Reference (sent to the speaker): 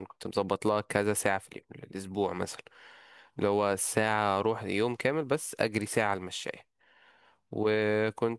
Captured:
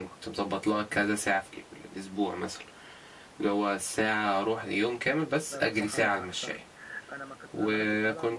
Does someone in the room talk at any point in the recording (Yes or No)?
Yes